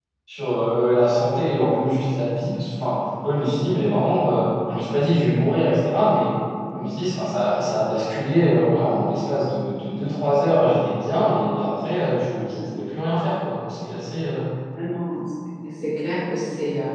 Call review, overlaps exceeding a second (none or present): none